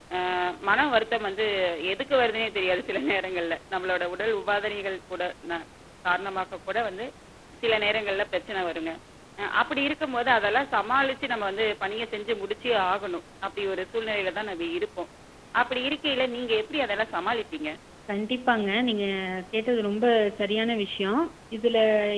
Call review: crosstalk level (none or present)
none